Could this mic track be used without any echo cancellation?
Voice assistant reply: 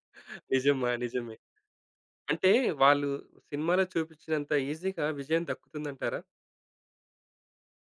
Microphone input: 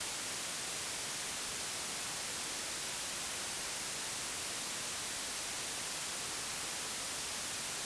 Yes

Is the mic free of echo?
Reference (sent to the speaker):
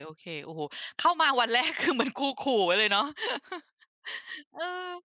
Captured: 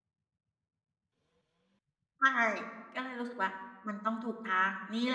Yes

